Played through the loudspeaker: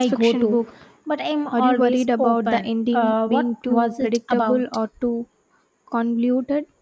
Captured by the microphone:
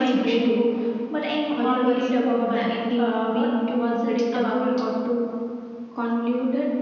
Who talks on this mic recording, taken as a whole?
echo only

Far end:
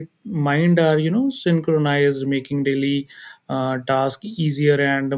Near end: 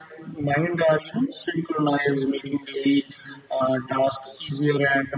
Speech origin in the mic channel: echo only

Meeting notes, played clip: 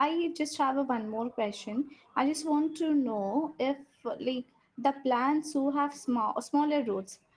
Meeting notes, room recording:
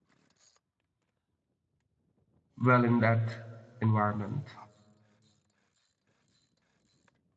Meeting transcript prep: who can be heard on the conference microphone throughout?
user only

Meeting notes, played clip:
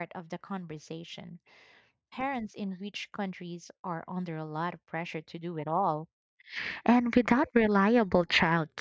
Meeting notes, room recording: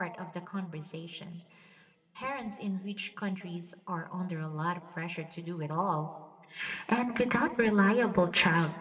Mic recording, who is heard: echo only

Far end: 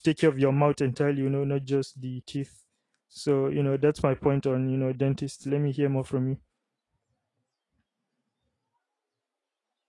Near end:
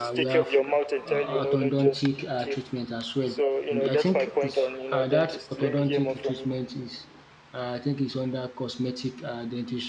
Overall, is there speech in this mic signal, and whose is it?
both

